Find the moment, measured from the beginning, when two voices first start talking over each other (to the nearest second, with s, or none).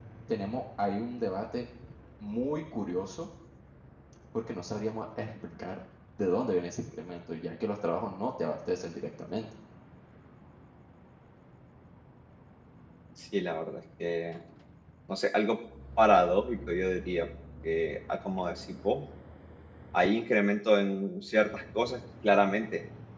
none